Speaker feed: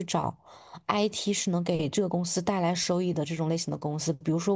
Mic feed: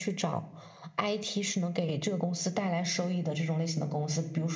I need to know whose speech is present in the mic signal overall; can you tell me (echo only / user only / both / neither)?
echo only